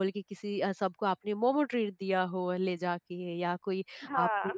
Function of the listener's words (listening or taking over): listening